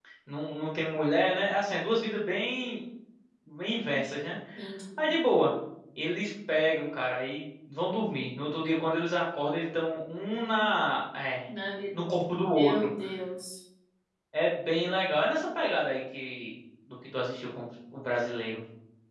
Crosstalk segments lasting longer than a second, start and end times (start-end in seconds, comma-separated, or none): none